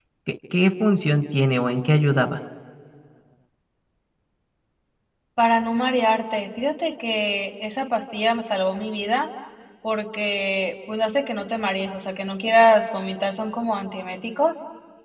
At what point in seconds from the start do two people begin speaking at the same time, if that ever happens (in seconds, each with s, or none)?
none